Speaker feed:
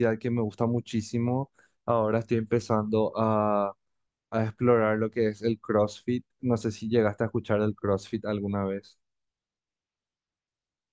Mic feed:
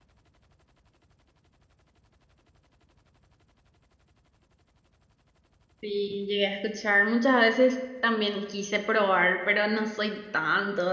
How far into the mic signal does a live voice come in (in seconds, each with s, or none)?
5.8 s